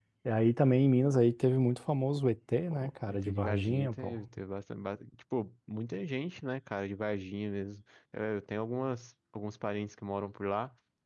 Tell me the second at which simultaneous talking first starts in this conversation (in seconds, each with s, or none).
2.7 s